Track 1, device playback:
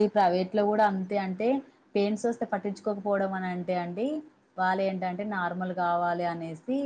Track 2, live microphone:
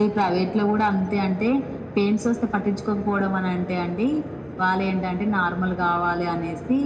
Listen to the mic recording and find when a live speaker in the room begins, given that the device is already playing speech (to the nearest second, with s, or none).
none